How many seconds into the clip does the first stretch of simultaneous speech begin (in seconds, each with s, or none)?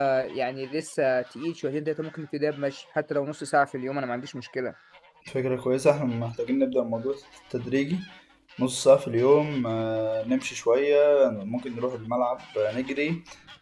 none